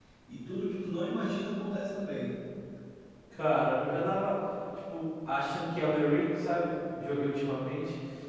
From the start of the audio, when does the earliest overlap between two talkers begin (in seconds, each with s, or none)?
none